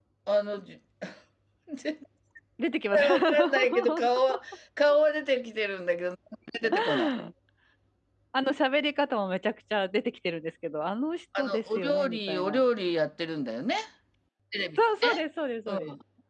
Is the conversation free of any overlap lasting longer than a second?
No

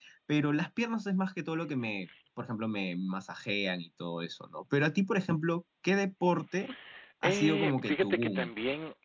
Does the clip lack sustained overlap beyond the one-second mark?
No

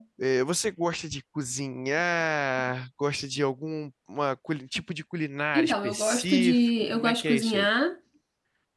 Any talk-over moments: Yes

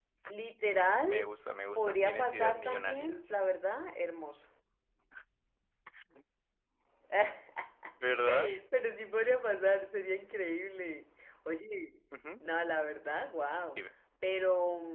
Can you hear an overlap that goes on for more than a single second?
Yes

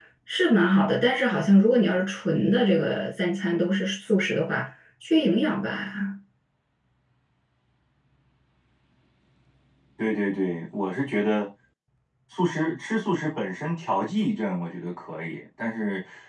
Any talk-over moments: No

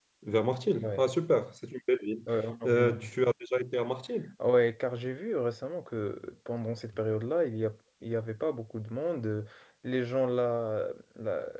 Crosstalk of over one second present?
No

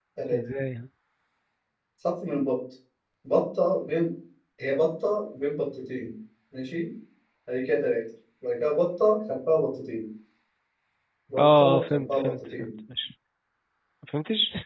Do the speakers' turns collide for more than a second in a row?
Yes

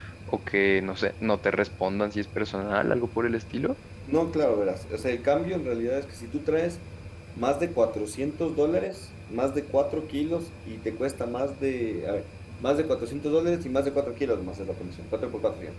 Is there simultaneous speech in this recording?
No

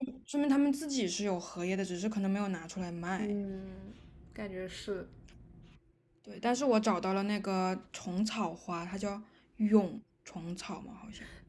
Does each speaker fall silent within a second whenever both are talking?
Yes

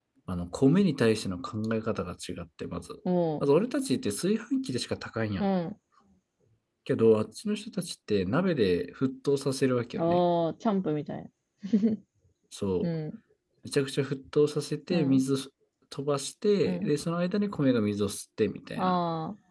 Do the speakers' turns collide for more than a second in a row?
No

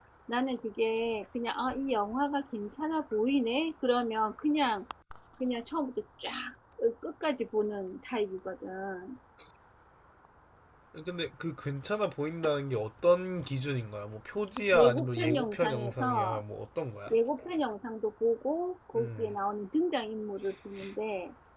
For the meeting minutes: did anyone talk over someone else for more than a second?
Yes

